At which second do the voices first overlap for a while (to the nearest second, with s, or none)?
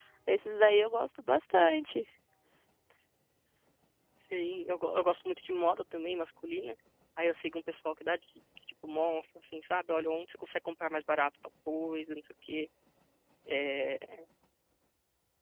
none